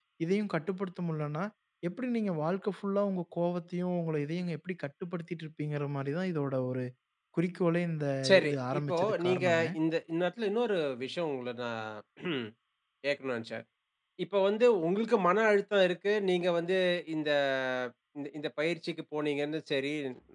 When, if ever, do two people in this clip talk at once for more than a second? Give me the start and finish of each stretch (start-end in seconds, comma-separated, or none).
8.4-9.7